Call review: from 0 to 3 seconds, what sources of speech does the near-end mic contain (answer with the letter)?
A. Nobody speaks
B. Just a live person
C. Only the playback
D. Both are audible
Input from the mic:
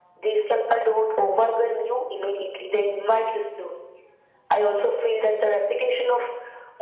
C